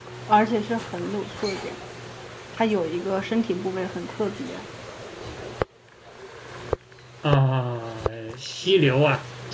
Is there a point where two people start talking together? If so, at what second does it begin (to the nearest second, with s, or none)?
none